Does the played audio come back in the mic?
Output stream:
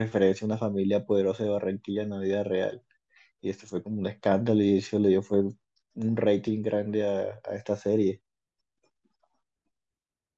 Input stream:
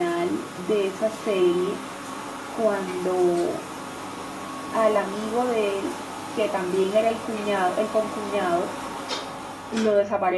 No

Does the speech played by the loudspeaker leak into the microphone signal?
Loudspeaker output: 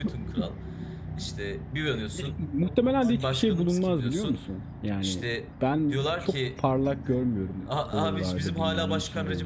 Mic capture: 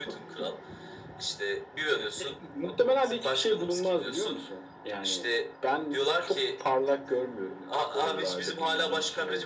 Yes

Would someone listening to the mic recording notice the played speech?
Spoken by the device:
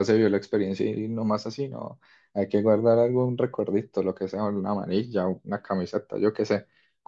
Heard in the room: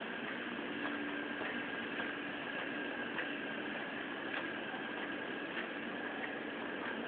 No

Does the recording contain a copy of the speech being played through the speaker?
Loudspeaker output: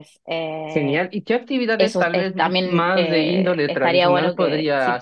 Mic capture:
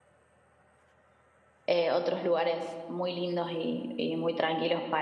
No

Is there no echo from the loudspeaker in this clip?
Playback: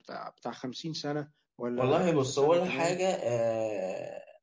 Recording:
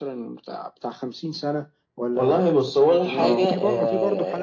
No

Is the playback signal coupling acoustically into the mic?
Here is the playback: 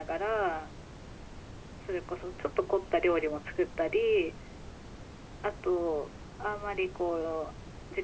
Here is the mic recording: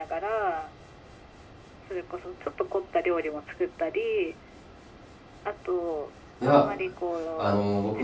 Yes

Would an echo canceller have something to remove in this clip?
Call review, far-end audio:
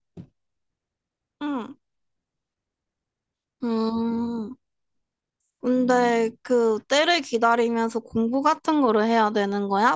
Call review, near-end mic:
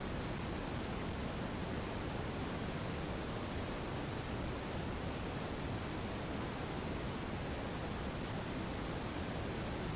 No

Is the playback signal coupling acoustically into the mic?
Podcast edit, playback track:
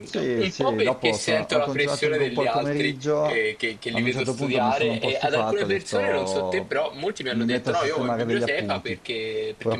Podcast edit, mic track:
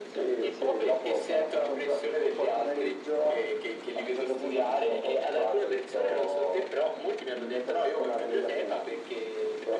Yes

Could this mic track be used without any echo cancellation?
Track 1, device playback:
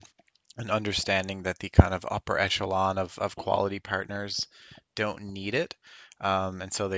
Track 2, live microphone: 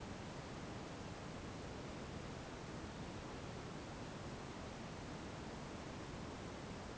Yes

